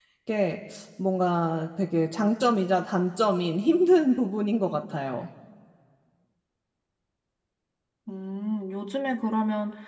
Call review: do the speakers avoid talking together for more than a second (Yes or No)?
Yes